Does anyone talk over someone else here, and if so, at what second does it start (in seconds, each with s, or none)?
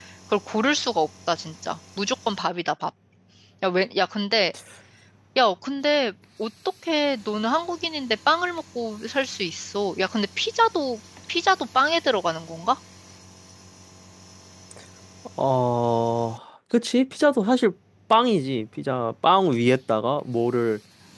none